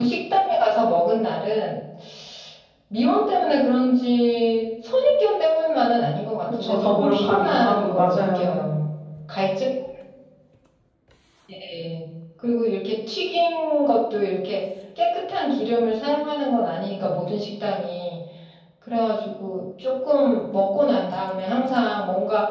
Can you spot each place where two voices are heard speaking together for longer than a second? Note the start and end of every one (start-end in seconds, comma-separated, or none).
6.4-8.6